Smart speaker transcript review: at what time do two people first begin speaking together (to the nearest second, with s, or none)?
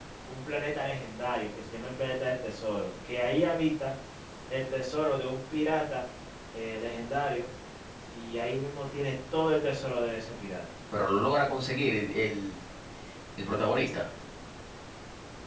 none